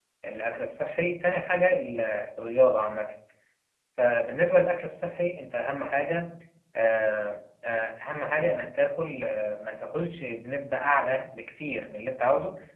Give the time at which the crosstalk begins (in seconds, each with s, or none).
none